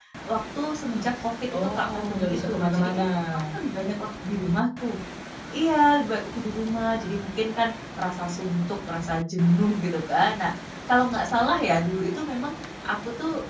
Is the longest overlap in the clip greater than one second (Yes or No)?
Yes